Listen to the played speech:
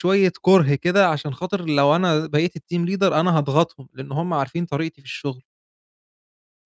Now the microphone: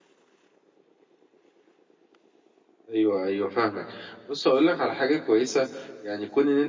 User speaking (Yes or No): Yes